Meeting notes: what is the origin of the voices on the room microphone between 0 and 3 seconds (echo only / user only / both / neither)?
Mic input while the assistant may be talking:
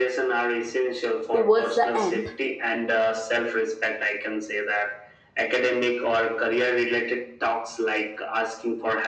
both